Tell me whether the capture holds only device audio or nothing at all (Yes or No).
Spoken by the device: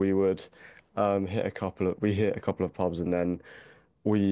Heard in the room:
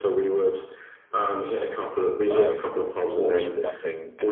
No